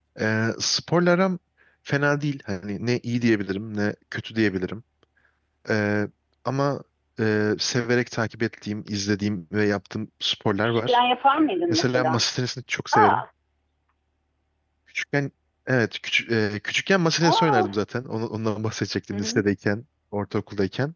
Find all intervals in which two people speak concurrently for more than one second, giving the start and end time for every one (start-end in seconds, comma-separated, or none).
none